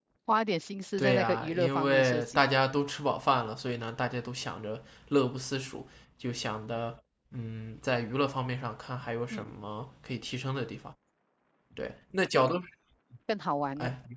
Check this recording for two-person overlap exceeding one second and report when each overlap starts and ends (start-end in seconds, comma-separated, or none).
1.0-2.4